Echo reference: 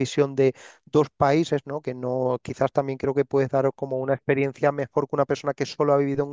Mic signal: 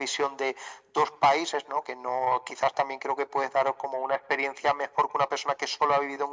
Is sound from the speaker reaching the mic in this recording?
Yes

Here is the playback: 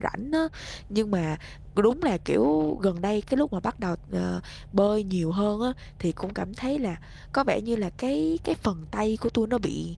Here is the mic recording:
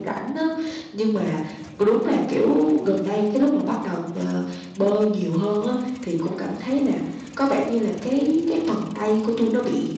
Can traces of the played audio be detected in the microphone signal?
Yes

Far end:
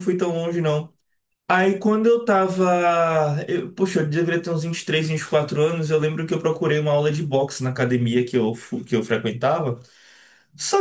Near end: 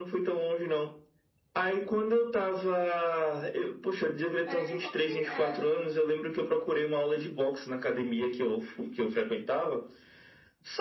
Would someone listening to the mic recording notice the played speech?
Yes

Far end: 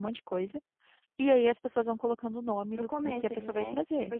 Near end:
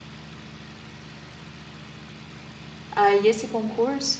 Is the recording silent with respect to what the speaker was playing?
Yes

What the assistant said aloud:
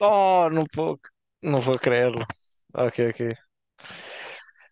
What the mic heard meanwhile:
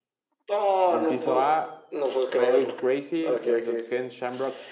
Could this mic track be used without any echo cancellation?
No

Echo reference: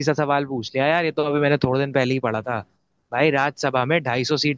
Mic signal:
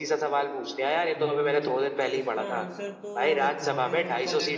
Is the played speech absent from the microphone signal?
No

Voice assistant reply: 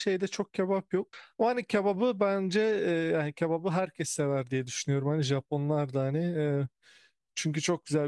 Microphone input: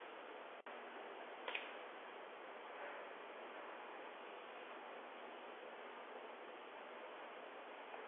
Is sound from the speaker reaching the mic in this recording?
No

